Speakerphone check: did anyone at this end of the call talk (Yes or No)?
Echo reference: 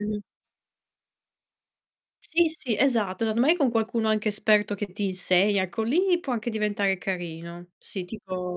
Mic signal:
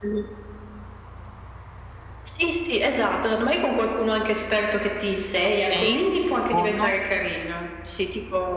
Yes